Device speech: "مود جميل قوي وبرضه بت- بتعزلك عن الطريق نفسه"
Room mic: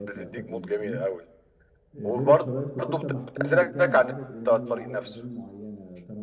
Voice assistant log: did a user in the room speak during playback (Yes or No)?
Yes